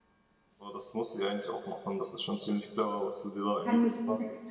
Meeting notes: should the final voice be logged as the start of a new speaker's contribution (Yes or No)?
Yes